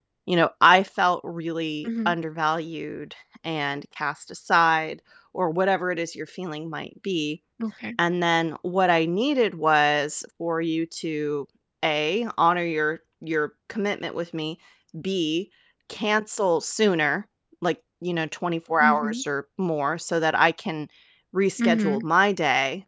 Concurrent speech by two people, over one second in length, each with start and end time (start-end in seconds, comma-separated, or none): none